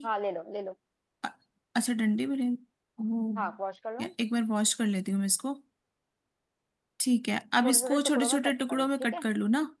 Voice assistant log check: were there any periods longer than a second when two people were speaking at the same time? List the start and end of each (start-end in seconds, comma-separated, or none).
7.6-9.3